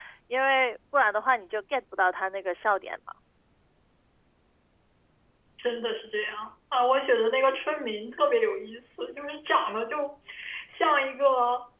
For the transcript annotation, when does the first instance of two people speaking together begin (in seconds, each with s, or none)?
none